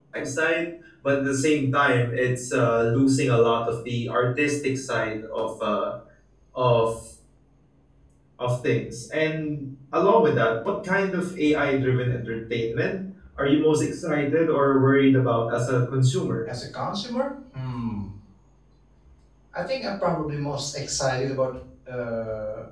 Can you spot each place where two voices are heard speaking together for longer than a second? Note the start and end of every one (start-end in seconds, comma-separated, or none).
none